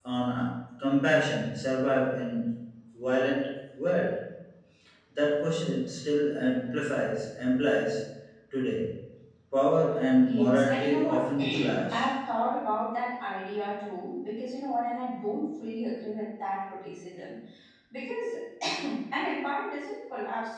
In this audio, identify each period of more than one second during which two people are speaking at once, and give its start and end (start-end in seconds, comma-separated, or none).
10.2-12.1